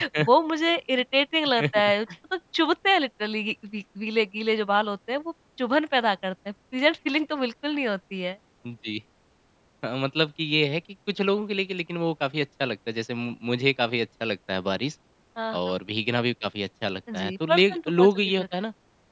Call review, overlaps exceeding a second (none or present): present